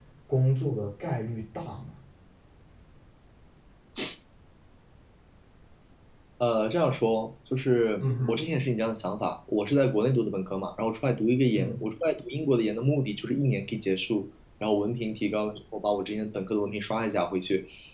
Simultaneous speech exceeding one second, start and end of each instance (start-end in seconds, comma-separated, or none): none